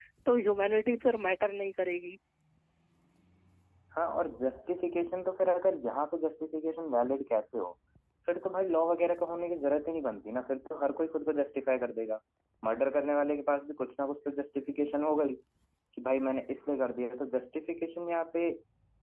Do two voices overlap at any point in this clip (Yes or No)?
No